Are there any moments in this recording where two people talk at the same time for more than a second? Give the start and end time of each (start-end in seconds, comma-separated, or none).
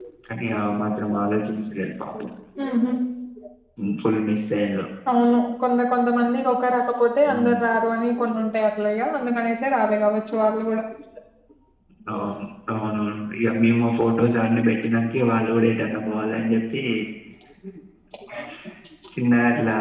none